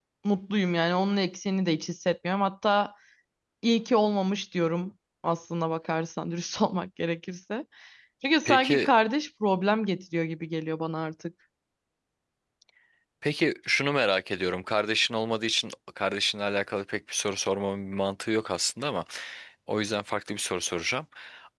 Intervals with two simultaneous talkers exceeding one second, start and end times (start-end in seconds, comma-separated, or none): none